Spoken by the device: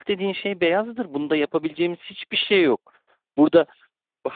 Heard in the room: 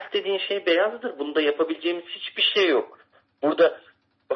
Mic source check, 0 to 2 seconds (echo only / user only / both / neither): echo only